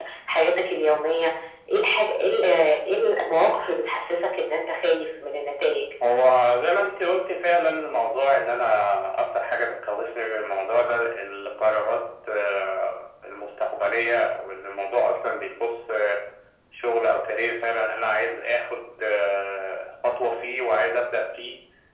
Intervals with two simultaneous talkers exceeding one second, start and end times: none

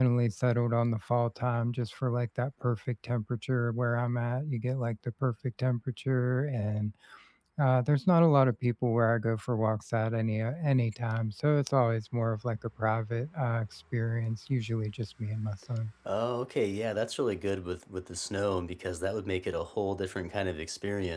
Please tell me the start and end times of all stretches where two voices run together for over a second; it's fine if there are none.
none

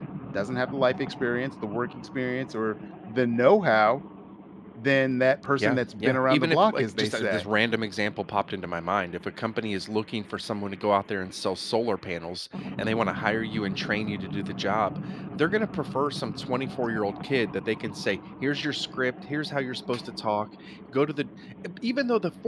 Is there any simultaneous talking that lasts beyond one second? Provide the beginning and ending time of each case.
5.6-7.5

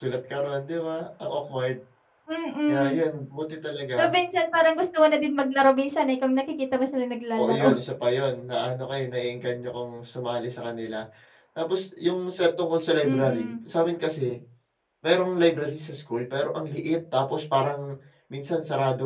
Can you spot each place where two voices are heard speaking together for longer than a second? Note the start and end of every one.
none

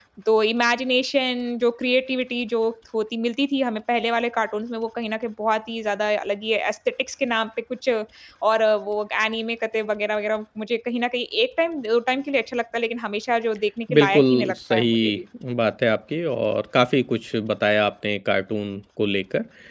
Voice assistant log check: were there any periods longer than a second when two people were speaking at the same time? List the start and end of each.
14.0-15.2

